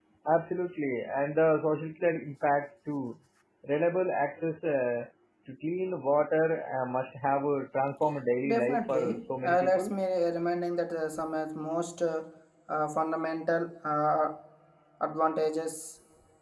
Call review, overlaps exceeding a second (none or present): present